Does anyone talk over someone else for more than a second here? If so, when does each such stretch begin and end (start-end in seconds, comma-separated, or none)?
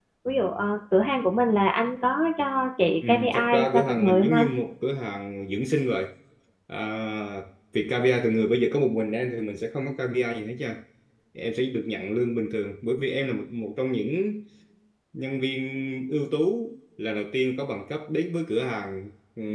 3.1-4.5